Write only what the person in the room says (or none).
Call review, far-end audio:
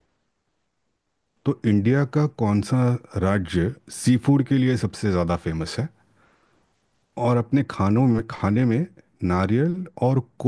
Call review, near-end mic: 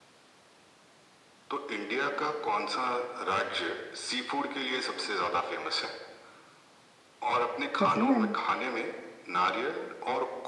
पसंद है ना